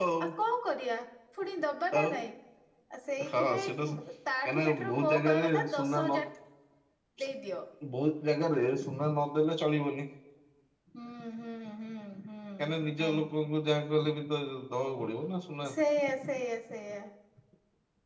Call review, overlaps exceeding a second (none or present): present